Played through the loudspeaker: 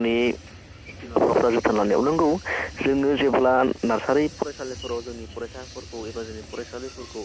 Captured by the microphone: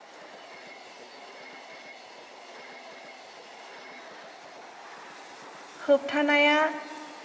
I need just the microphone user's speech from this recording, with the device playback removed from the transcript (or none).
होबथानाया